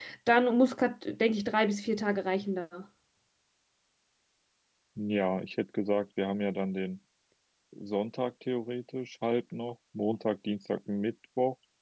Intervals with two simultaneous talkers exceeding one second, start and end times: none

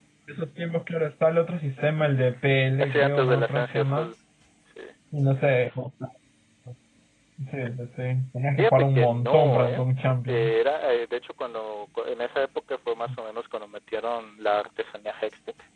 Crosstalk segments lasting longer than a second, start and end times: 2.8-4.1, 8.6-9.8

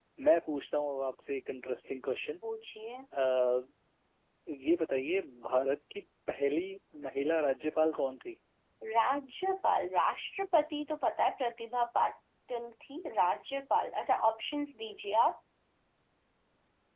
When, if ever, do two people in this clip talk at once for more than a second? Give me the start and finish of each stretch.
none

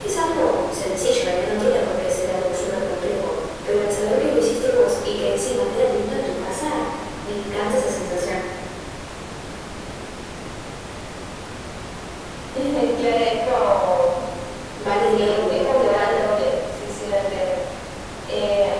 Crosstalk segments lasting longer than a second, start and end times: 15.0-16.2

